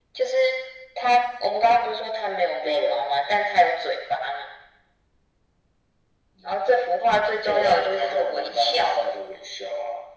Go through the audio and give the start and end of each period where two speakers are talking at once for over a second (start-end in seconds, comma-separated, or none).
7.4-9.1